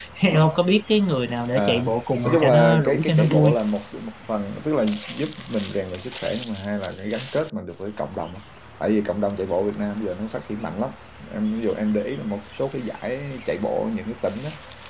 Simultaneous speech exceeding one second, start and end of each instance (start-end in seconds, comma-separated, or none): 2.2-3.6